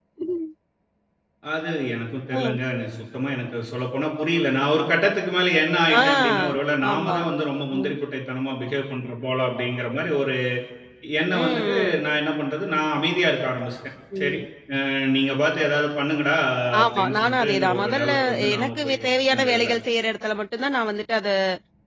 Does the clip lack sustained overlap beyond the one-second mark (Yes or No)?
No